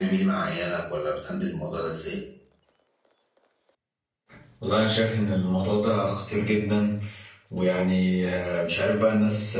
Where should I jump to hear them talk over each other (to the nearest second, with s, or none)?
none